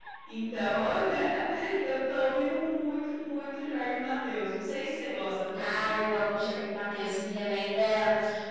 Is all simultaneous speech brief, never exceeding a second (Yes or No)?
Yes